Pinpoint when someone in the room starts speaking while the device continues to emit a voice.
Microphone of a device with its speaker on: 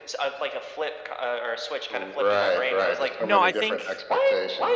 3 s

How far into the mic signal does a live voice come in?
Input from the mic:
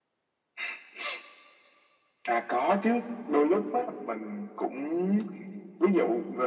none

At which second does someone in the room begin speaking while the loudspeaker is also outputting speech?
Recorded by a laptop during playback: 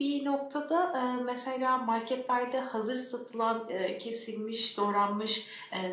none

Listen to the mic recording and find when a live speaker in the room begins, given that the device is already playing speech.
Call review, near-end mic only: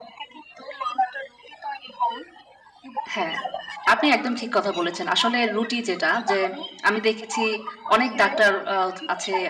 3 s

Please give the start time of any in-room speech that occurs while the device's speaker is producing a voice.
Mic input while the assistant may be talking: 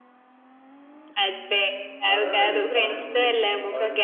2 s

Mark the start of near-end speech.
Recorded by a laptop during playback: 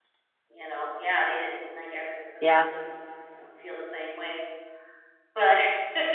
2 s

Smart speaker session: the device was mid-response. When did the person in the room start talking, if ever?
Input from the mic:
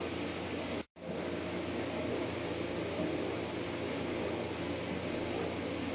none

